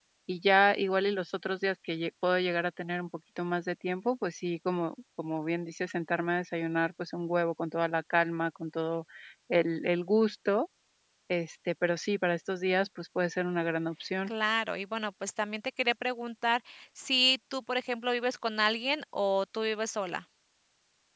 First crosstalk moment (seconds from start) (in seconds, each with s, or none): none